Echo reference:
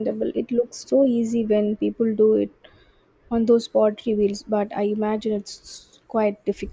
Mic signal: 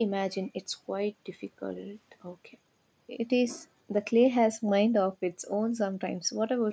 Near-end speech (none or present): present